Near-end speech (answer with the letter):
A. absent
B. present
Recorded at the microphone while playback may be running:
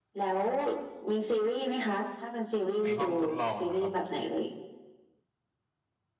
B